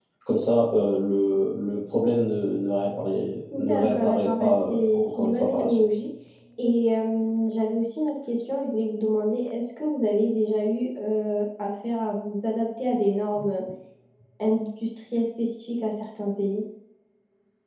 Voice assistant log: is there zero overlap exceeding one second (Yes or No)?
No